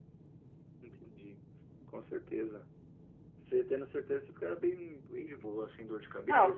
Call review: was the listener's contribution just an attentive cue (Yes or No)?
No